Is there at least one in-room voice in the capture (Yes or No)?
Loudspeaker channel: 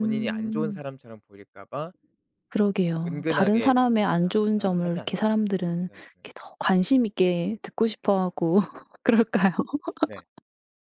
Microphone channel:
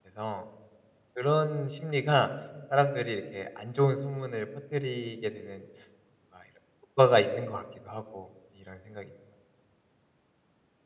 Yes